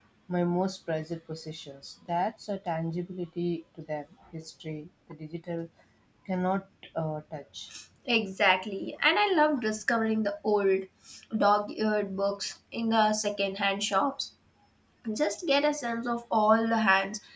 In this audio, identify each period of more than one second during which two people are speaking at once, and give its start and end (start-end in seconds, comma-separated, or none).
none